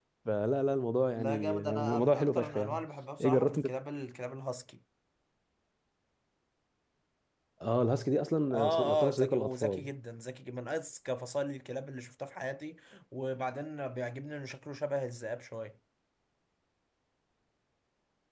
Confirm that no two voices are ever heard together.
No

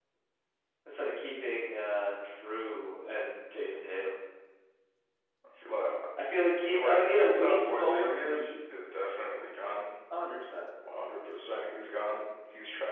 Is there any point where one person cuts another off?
Yes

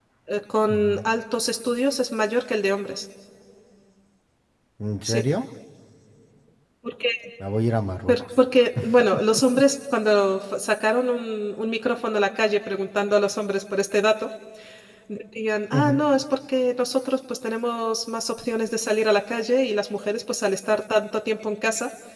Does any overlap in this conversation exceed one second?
No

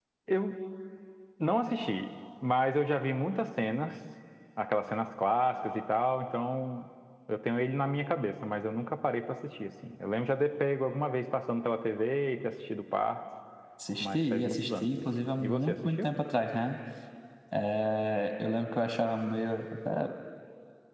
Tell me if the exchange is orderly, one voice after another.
No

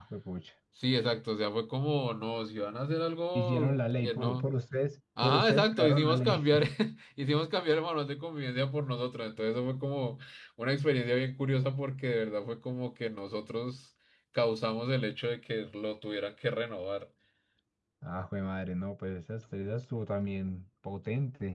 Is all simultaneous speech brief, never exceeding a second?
No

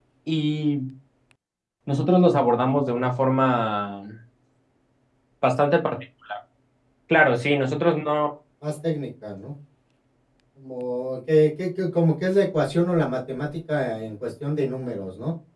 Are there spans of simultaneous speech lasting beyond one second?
No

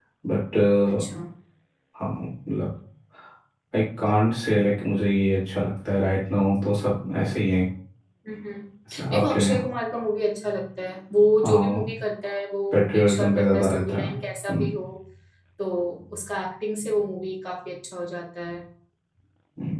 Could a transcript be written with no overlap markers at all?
No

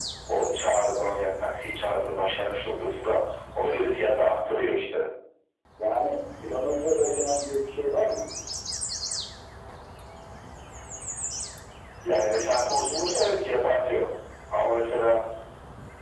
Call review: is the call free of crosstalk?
Yes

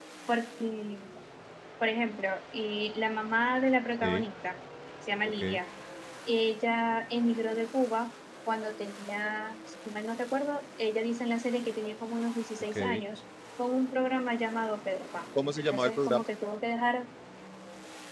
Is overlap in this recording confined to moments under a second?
Yes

